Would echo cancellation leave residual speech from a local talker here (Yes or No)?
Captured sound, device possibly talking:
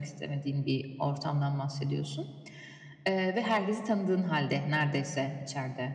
No